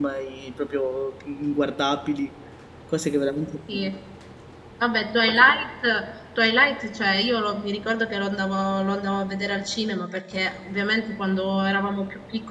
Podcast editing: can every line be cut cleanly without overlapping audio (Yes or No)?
Yes